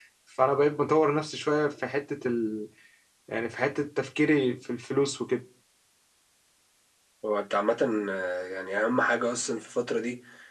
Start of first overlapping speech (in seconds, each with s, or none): none